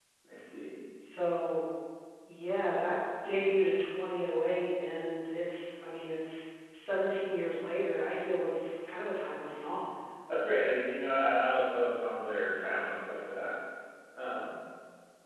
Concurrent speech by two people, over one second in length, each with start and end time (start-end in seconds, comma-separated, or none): none